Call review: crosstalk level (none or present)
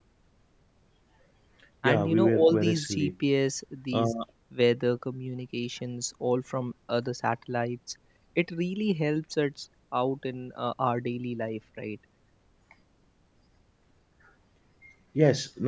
present